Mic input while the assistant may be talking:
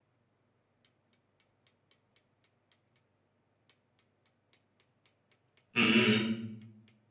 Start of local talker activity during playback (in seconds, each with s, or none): 5.7 s